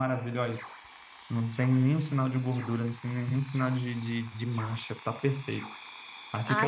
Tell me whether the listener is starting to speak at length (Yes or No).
Yes